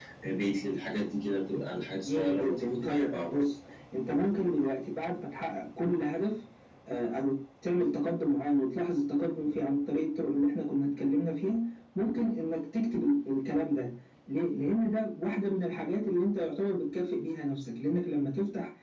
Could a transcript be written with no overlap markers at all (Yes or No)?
No